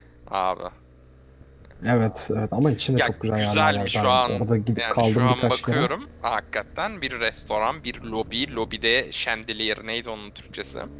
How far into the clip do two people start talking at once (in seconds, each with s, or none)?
3.0 s